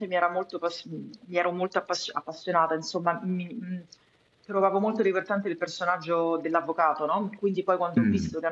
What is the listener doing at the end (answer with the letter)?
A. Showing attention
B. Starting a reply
A